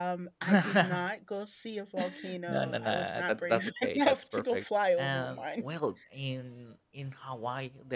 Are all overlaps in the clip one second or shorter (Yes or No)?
No